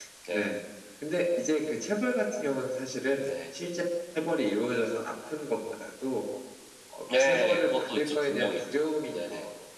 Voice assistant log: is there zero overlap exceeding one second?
No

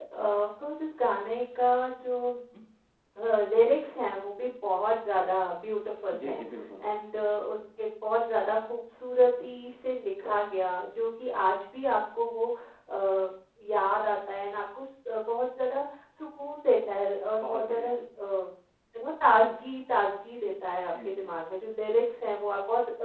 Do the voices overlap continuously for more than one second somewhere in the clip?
No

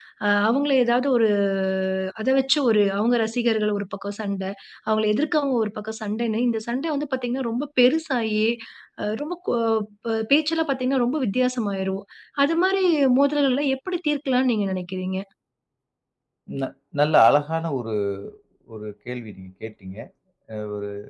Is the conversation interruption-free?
Yes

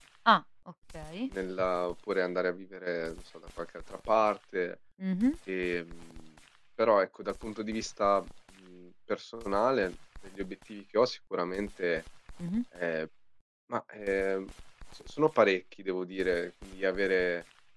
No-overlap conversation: Yes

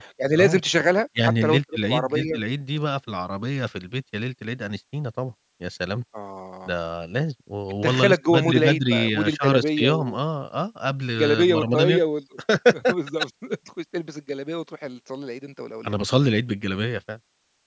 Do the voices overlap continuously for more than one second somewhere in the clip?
Yes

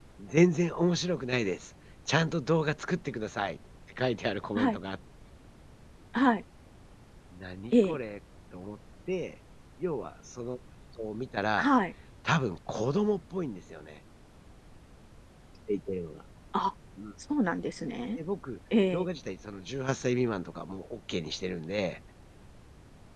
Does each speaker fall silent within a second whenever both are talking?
Yes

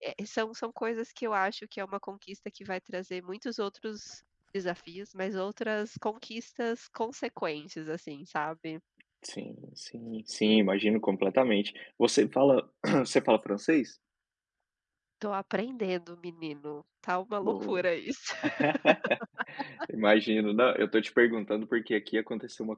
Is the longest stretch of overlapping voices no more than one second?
Yes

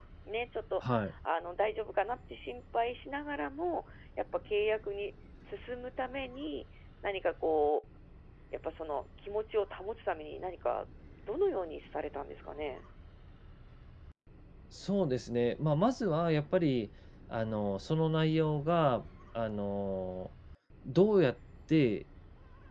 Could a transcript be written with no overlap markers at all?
Yes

